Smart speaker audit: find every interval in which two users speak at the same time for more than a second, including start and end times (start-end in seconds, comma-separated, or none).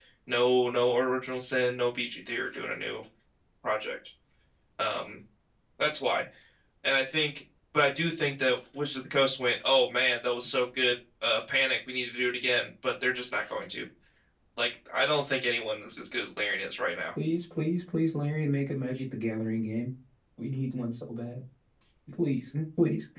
none